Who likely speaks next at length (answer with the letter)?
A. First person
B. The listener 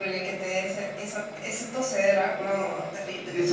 B